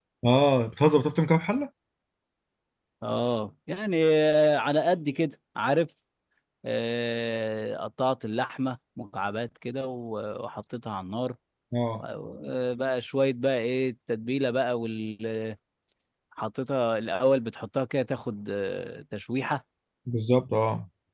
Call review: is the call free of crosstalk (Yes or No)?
Yes